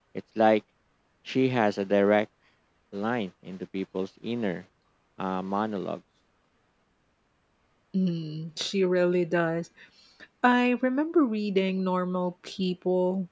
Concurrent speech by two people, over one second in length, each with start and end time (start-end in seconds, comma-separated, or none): none